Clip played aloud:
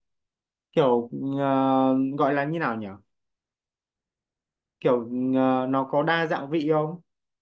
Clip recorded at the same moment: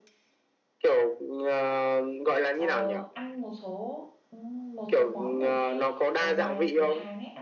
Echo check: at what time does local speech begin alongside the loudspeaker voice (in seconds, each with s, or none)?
2.5 s